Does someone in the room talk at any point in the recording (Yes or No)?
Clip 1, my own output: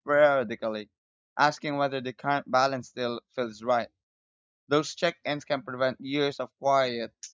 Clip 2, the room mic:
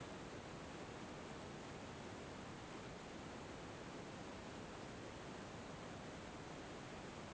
No